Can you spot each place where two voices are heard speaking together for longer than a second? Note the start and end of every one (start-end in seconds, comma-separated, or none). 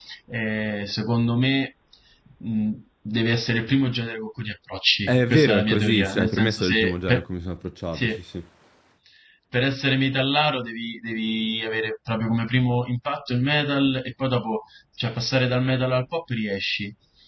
5.1-7.2